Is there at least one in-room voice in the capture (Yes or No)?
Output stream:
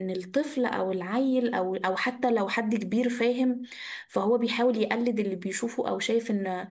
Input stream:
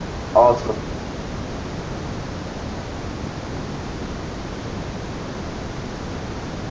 Yes